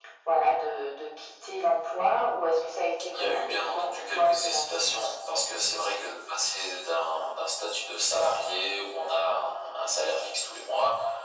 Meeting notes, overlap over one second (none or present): present